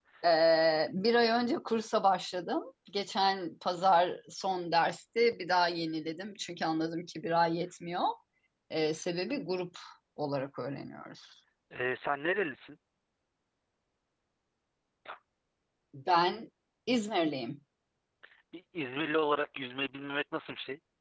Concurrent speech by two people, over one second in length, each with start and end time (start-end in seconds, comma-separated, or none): none